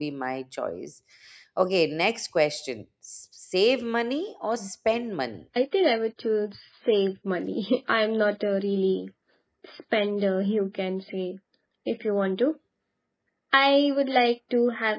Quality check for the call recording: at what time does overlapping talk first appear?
none

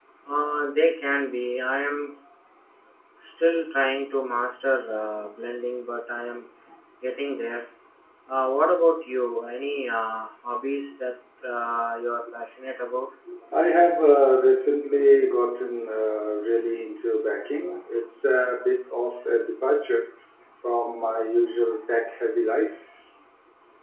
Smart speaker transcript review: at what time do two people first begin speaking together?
none

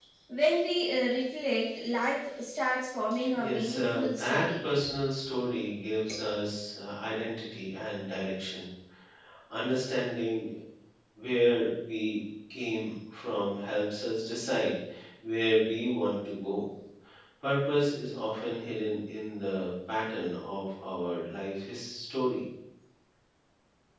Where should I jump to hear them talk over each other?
3.1 s

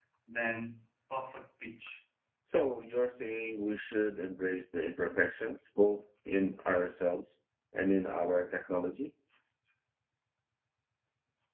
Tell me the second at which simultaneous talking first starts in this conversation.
none

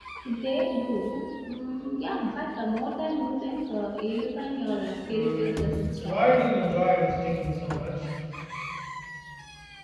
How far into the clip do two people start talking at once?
5.1 s

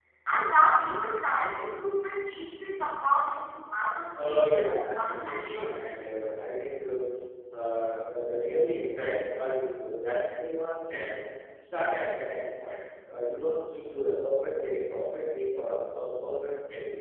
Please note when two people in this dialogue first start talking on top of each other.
4.2 s

